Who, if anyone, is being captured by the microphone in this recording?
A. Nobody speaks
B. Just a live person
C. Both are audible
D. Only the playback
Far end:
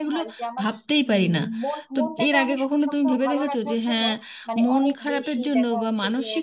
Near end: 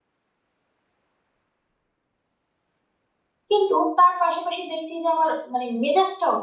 B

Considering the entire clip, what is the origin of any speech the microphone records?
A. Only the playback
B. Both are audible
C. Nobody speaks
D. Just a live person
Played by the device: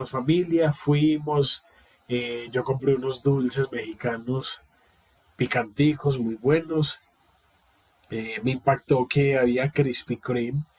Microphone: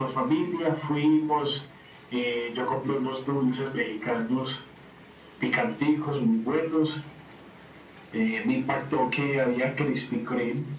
A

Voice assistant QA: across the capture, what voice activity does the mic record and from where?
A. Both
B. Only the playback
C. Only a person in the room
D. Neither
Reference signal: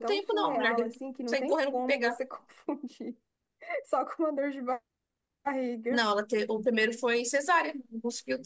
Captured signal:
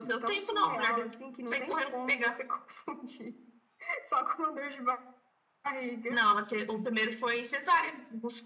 B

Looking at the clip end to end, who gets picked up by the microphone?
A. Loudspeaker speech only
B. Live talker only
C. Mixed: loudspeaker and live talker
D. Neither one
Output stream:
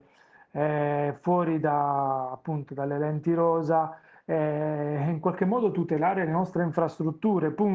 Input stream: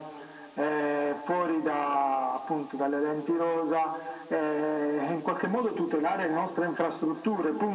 A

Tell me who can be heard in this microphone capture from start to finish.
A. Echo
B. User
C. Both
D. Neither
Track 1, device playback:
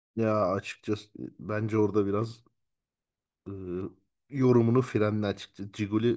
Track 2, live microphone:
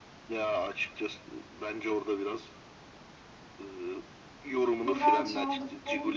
C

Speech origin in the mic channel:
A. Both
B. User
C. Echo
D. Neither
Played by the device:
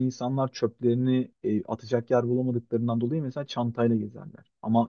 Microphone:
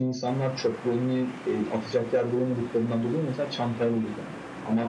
C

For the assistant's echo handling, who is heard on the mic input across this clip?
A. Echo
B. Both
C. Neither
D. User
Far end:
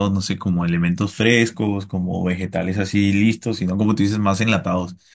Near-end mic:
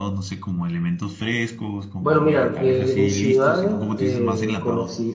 B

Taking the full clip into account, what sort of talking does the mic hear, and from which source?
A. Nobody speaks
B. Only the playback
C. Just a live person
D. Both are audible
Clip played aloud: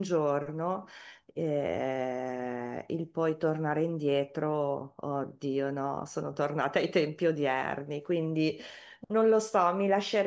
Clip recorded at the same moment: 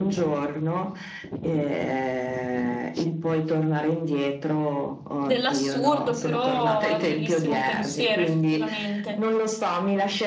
D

